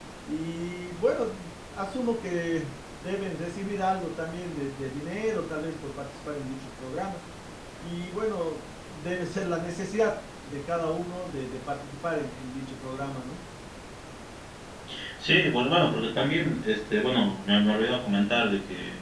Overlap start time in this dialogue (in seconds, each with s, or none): none